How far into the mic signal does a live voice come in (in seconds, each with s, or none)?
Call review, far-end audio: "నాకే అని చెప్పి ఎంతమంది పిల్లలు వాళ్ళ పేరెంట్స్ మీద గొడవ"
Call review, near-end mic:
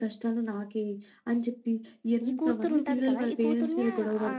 2.3 s